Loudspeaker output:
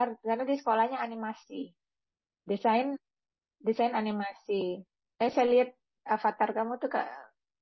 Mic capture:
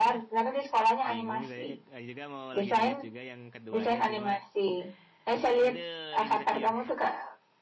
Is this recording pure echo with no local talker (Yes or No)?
No